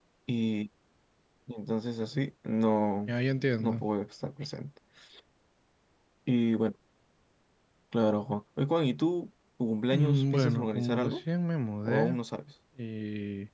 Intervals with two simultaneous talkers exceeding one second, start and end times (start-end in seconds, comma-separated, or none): 9.9-11.2